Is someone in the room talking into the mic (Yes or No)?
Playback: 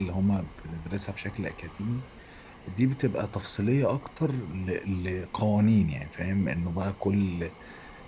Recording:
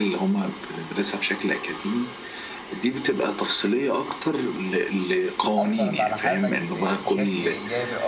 Yes